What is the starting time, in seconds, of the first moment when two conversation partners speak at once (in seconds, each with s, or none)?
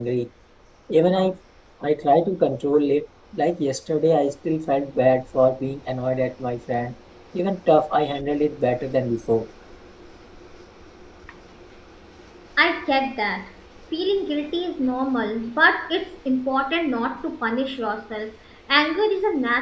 none